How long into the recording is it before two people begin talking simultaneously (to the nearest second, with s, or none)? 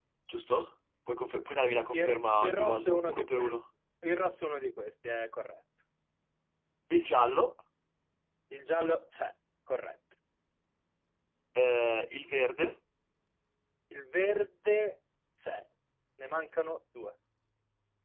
2 s